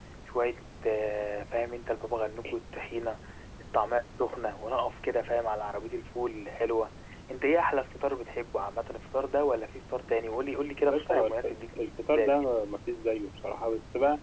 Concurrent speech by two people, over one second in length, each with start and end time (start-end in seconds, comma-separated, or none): 10.8-12.4